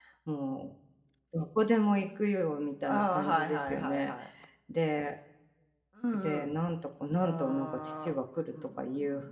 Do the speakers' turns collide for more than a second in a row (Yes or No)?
Yes